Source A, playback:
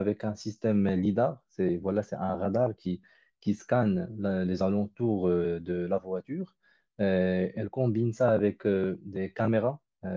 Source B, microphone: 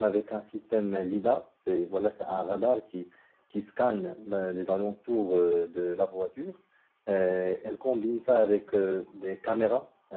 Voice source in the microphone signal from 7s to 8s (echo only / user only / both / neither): echo only